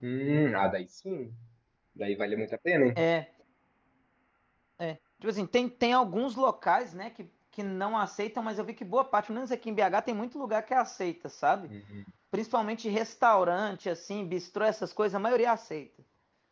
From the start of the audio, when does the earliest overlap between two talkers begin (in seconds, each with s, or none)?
none